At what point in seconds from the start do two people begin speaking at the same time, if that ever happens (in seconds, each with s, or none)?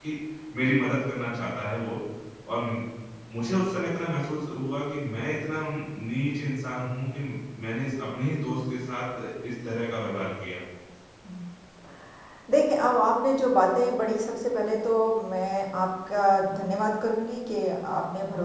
none